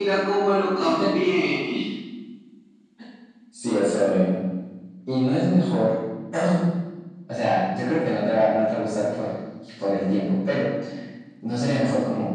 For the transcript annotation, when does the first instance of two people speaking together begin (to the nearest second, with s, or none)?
none